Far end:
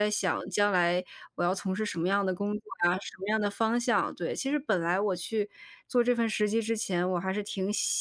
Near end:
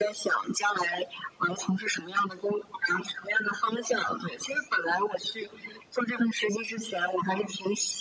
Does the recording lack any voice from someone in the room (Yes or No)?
Yes